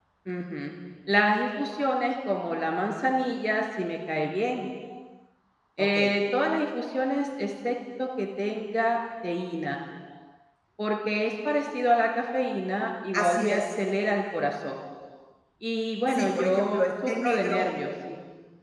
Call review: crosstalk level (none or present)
present